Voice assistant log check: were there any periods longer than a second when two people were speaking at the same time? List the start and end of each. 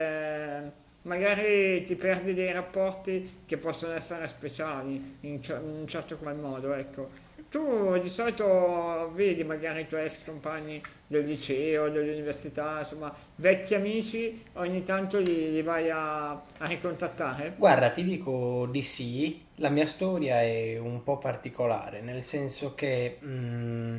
none

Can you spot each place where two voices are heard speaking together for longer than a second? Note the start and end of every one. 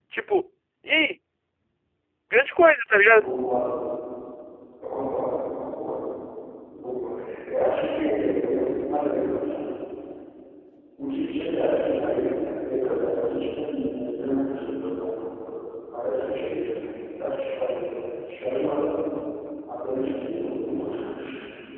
none

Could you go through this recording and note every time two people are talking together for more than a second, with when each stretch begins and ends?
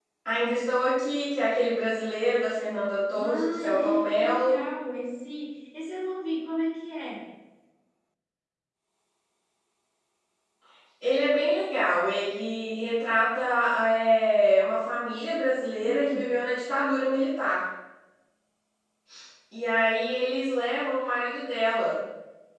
3.1-4.6

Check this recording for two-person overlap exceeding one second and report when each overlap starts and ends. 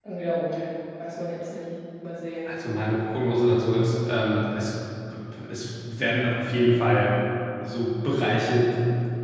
none

